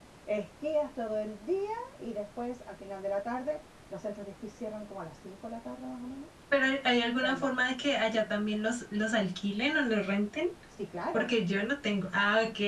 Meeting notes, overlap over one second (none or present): none